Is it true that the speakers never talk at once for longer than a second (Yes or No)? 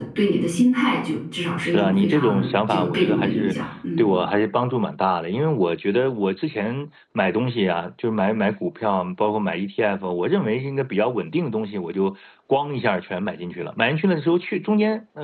No